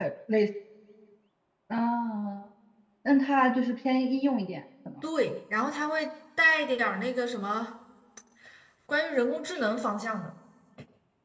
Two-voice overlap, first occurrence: none

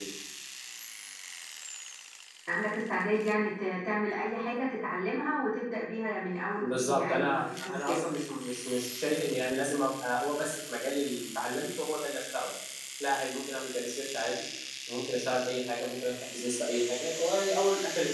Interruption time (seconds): 6.6 s

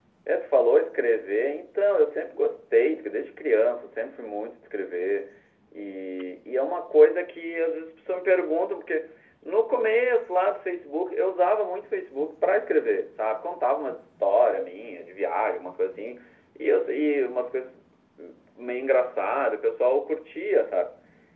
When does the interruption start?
none

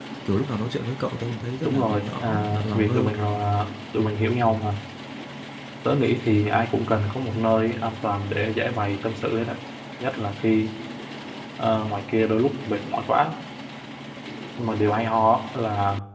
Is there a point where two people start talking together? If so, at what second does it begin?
1.6 s

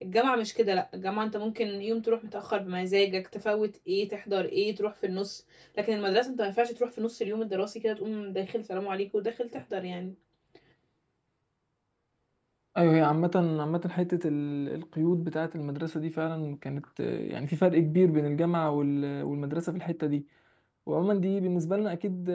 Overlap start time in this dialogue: none

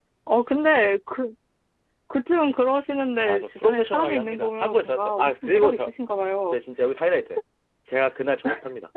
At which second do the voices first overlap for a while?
3.3 s

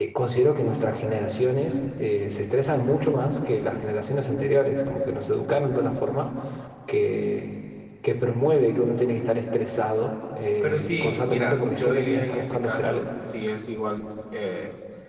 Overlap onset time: 10.6 s

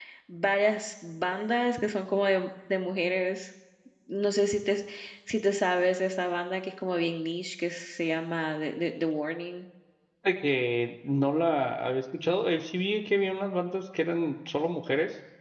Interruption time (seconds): none

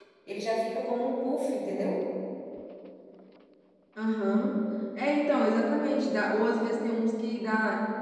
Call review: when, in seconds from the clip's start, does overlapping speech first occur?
none

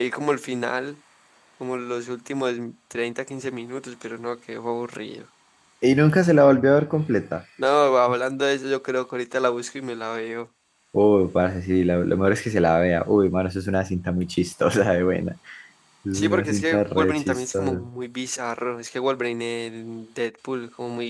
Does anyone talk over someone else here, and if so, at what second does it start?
16.1 s

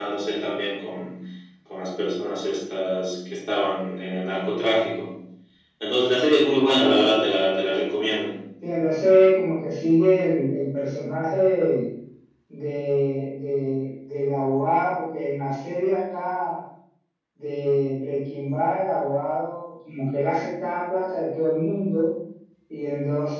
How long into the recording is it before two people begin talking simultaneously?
none

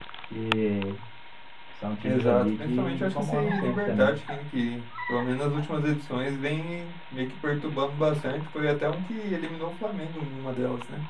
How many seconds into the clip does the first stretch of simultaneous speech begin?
2.0 s

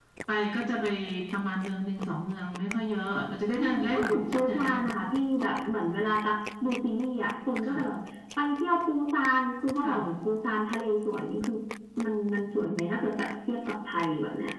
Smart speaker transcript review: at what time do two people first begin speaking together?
3.6 s

